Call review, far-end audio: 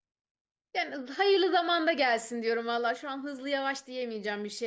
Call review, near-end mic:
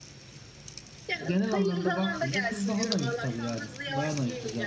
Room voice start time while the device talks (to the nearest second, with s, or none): 1 s